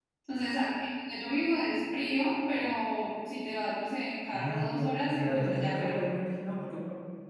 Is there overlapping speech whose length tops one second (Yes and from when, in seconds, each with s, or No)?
Yes, from 4.3 s